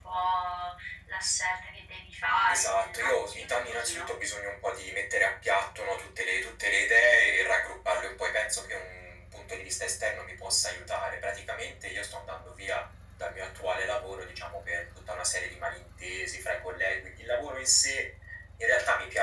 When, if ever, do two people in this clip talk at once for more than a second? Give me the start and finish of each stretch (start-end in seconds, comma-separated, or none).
2.5-4.0